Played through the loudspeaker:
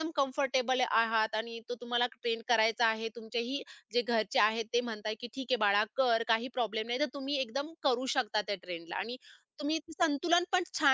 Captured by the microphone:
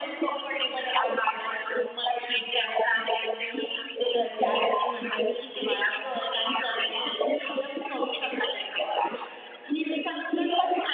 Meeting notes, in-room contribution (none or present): none